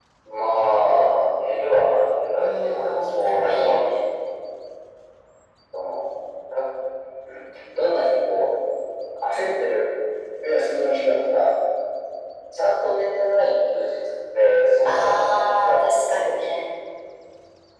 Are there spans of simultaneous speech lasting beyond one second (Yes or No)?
Yes